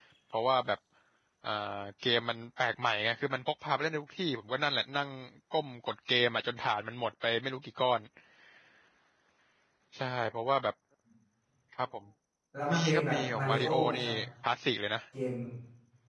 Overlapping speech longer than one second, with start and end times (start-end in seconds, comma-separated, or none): 12.7-14.0